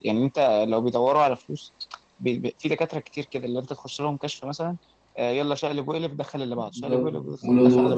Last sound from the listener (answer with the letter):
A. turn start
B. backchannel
A